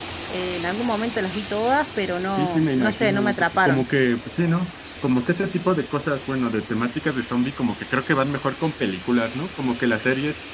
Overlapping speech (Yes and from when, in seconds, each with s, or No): Yes, from 2.4 s